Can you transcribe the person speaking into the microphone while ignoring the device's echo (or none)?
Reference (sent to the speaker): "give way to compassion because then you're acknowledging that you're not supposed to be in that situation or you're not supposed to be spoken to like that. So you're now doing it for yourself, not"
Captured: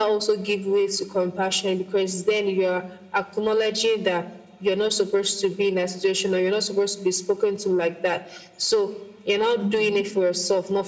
something.